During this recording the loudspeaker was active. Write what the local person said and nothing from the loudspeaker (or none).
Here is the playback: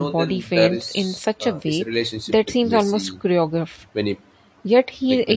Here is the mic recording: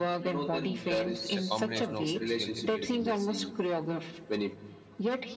So it's a combination of physical ability,